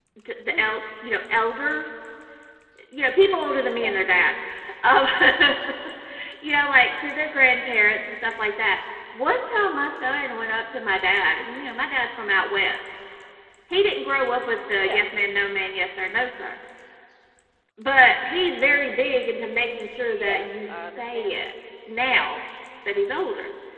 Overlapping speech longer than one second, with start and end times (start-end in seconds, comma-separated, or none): 20.1-21.5